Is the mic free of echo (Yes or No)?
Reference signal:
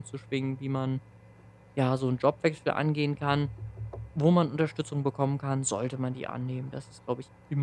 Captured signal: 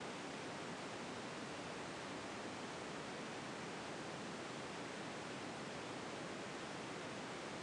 Yes